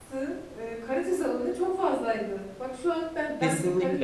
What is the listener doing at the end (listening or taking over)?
taking over